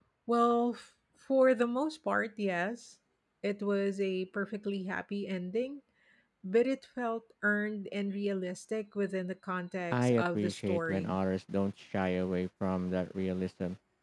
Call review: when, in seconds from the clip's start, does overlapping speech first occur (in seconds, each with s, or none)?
9.9 s